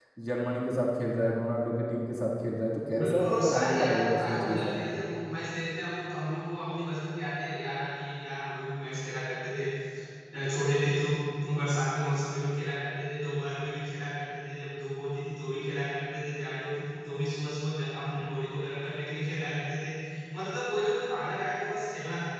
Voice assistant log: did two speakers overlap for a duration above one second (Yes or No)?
Yes